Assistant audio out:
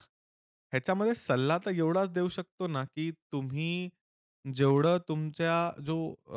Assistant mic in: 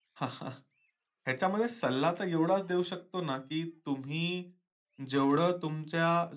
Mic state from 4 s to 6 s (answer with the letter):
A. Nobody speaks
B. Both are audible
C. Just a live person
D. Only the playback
D